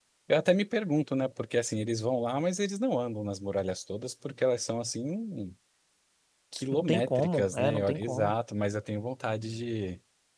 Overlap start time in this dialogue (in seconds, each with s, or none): 6.8 s